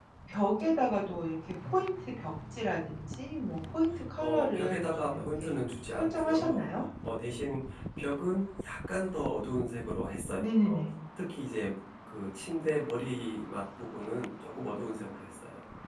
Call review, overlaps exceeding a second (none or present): present